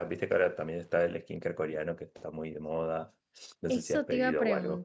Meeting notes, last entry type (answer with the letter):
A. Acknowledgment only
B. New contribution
B